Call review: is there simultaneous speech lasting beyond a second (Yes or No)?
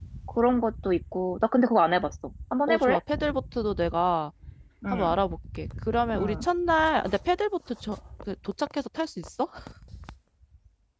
No